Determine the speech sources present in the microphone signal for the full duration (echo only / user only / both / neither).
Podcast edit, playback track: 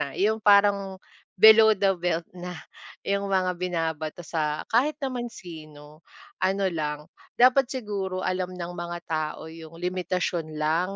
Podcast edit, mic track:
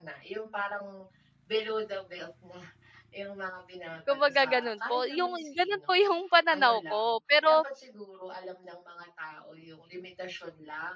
both